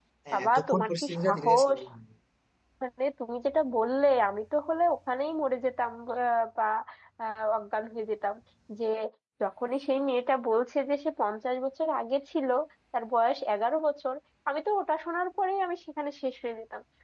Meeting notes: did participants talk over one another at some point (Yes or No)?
Yes